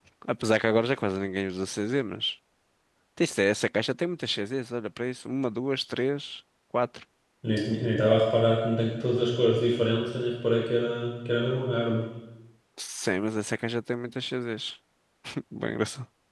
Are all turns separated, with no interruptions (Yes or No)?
Yes